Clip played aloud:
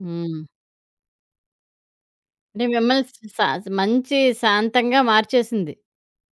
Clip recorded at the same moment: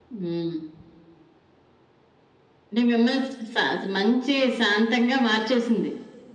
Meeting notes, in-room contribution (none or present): none